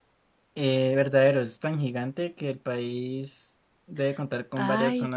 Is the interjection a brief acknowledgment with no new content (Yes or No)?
No